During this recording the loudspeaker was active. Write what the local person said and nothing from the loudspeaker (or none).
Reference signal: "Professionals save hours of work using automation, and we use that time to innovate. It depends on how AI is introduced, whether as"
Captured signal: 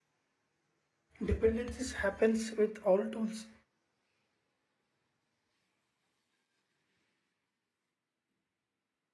Dependencies happens with all tools.